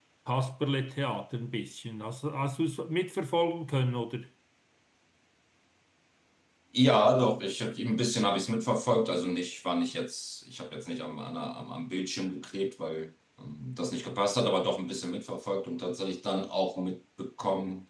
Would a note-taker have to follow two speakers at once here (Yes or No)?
No